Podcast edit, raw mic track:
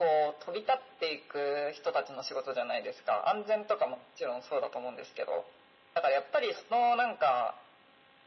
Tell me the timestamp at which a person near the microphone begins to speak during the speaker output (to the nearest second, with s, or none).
none